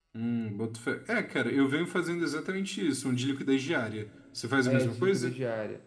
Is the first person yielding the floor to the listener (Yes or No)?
Yes